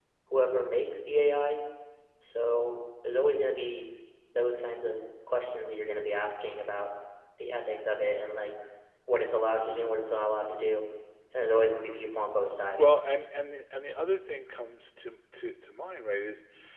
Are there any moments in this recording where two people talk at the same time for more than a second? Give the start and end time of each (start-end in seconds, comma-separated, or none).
none